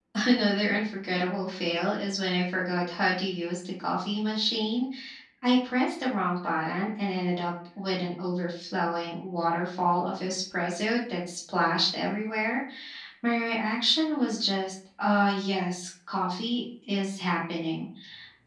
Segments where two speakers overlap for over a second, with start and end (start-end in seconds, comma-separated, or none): none